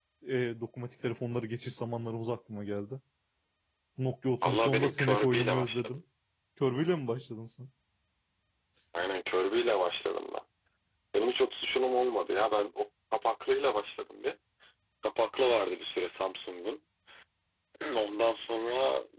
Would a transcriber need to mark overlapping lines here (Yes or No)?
Yes